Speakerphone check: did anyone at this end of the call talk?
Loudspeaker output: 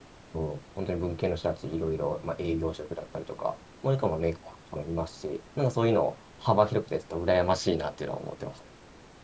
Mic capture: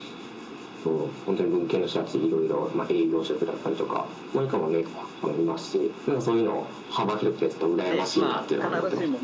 Yes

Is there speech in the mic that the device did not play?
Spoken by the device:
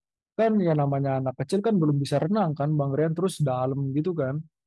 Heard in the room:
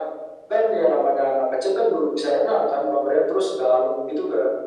No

